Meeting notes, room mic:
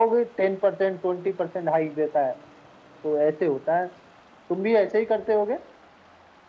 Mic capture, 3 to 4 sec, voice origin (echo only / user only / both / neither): echo only